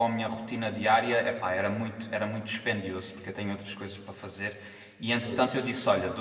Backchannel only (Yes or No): Yes